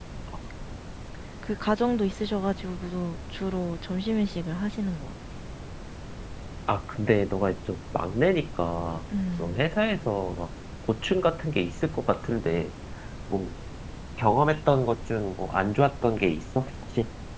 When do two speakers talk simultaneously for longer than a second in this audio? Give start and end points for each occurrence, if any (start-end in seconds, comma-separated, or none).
none